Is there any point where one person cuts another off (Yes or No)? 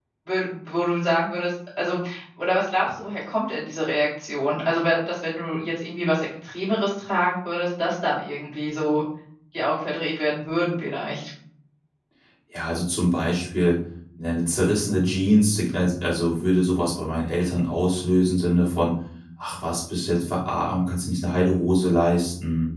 No